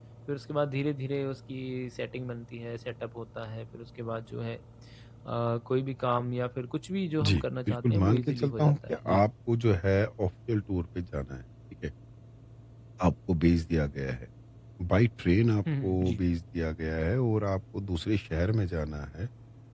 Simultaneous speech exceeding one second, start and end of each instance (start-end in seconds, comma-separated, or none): 7.2-9.2